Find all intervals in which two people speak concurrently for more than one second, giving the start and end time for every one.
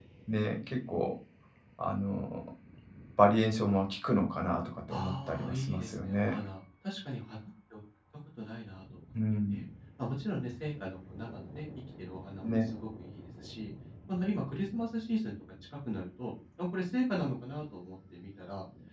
4.9-6.4

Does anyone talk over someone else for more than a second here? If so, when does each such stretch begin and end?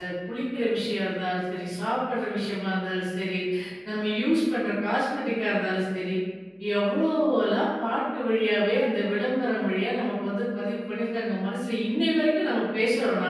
none

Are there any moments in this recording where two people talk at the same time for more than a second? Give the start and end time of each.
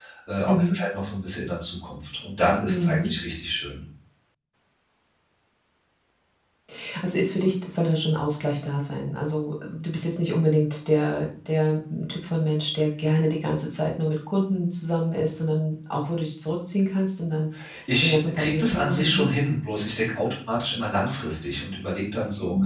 18.0-19.4

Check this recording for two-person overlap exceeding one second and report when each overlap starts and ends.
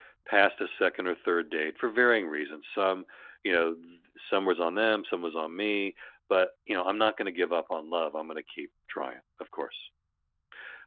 none

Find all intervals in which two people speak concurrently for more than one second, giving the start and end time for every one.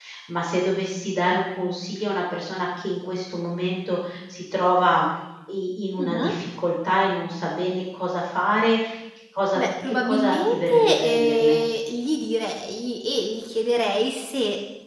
9.6-11.6

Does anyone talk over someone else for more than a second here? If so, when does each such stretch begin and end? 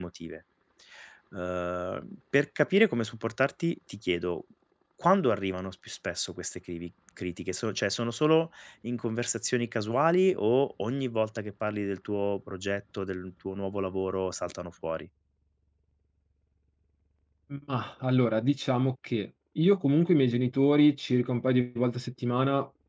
none

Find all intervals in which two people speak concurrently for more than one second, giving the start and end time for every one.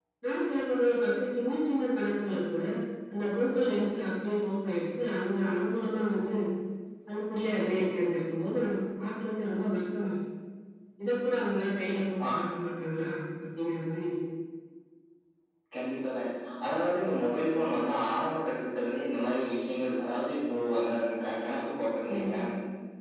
none

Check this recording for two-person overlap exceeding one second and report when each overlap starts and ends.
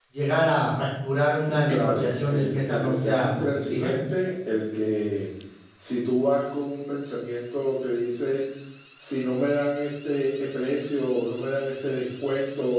1.7-3.9

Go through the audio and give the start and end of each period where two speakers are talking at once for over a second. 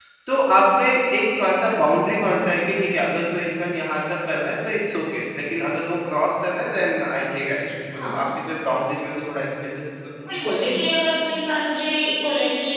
none

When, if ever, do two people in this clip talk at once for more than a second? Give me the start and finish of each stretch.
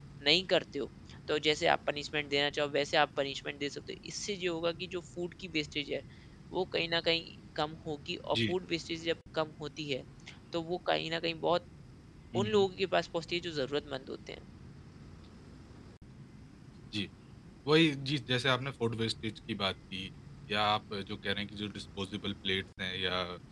none

